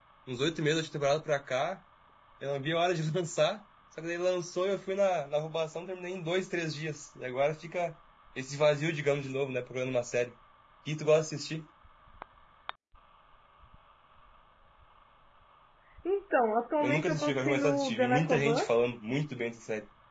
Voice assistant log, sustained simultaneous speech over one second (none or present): present